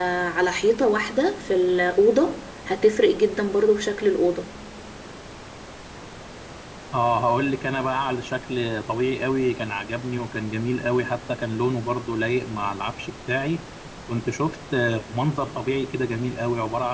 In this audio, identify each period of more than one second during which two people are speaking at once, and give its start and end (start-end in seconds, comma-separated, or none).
none